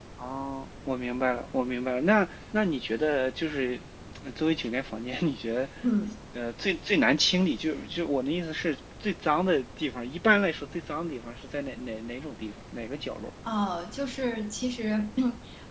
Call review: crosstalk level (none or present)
none